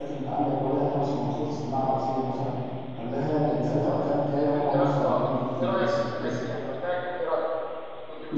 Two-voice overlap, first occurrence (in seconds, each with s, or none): 4.5 s